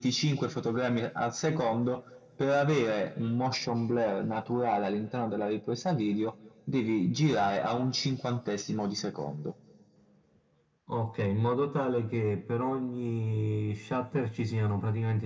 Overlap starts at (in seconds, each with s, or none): none